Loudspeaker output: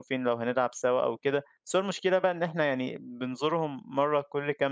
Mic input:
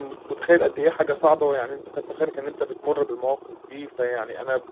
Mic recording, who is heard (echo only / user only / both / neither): user only